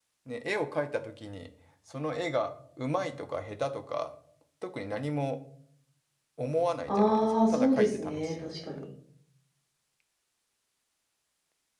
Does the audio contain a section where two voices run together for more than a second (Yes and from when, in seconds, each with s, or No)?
Yes, from 6.9 s